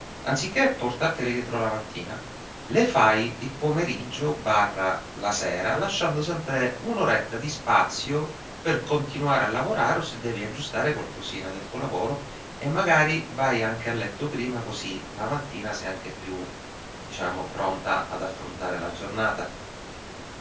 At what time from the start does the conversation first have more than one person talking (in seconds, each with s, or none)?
none